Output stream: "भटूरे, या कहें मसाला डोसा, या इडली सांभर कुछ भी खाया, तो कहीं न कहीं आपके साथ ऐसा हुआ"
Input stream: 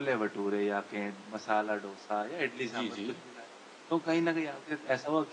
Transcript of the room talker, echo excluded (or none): जी, जी।